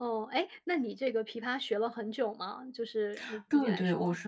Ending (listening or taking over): taking over